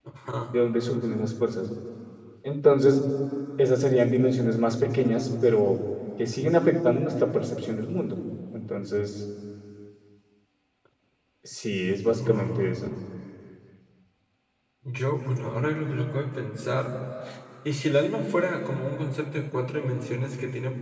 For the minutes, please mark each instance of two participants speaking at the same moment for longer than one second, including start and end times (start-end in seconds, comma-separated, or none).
none